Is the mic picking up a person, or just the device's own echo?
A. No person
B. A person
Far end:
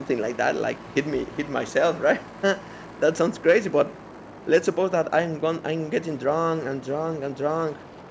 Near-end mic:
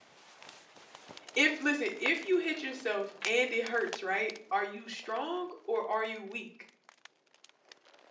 B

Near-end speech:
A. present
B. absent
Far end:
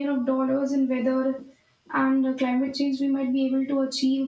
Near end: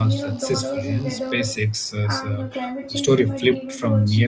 A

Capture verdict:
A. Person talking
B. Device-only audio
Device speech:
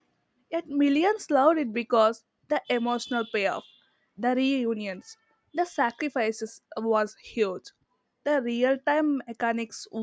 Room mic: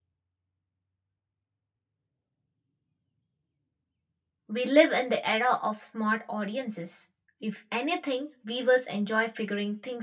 A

